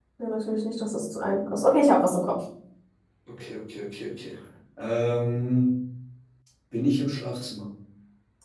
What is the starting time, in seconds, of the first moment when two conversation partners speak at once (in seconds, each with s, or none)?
none